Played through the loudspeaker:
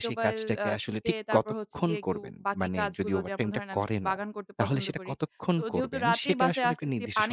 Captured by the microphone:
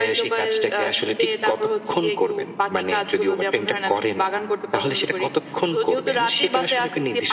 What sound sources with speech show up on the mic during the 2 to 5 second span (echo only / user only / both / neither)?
echo only